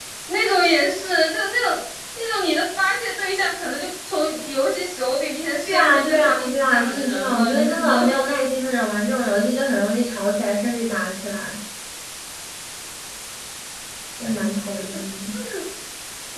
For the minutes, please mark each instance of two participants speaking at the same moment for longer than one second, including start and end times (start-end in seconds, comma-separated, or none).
5.7-8.0